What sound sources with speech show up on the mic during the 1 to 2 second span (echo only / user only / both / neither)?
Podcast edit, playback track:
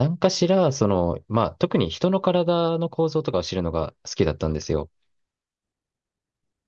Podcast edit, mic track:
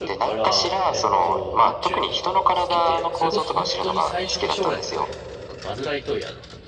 both